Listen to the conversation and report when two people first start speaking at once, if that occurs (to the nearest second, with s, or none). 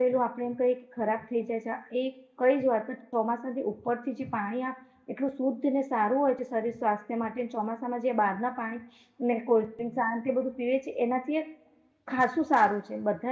none